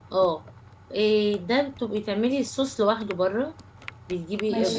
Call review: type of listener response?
listening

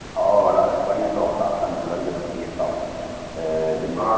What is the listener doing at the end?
taking over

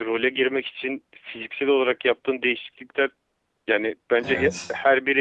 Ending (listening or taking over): listening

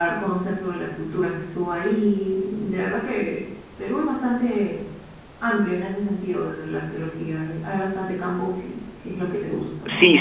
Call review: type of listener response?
taking over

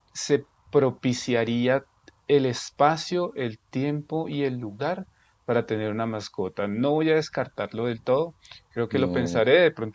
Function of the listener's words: listening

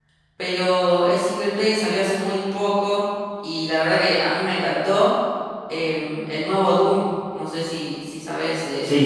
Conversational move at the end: taking over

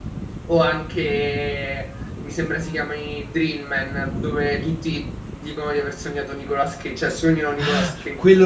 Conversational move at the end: taking over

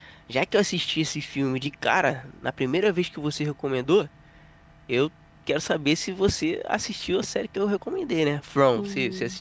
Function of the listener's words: taking over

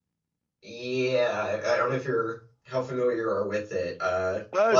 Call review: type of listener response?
taking over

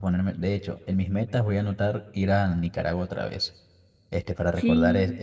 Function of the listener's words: listening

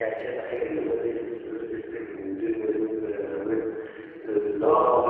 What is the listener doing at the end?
listening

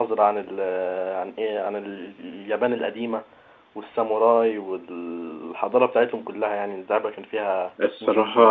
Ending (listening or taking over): taking over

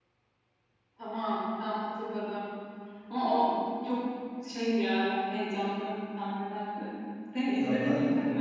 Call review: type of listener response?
listening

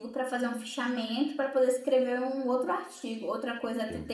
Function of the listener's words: listening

